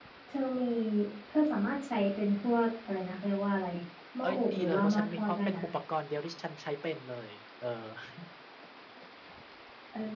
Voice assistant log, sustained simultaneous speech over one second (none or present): present